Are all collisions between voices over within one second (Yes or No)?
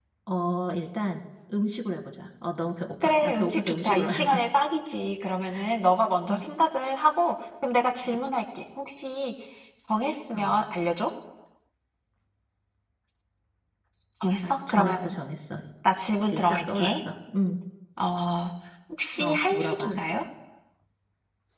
No